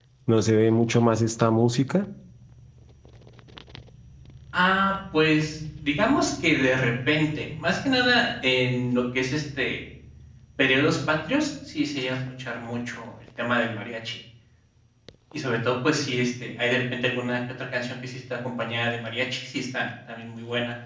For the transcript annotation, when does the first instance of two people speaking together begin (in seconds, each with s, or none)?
none